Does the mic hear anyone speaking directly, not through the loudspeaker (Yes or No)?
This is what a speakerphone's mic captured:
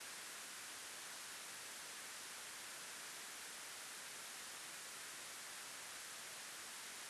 No